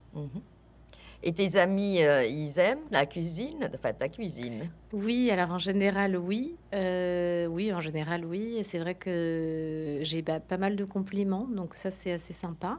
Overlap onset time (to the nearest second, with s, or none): none